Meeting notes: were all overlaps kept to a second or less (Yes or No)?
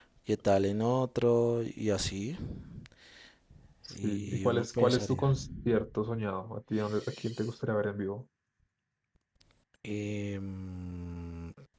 No